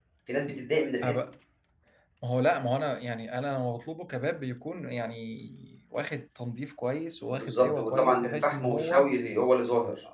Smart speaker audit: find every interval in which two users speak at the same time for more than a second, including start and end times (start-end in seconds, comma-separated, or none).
7.3-9.1